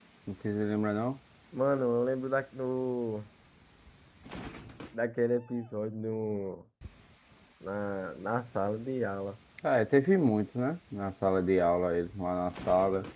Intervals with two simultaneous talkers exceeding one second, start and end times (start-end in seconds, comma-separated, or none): none